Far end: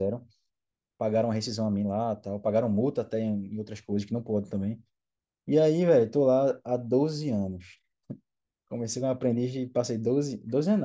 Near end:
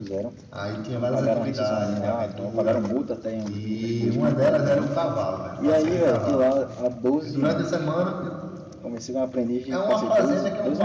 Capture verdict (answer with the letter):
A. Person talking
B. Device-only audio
A